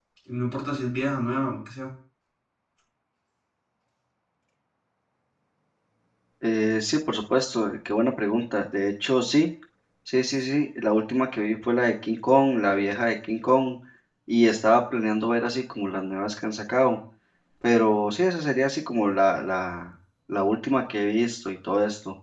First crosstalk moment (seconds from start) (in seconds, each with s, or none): none